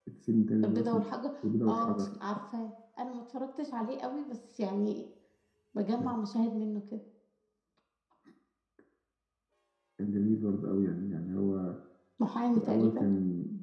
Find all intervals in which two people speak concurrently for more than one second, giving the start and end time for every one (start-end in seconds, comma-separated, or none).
none